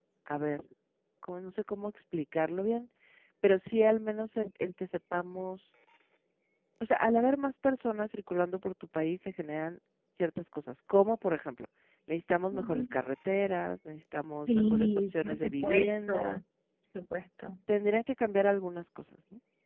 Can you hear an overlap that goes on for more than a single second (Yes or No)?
Yes